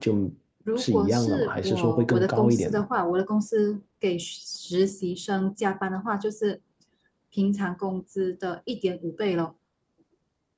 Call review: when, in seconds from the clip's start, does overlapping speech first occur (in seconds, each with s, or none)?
0.8 s